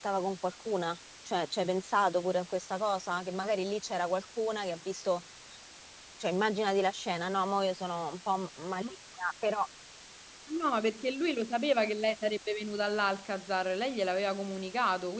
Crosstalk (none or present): none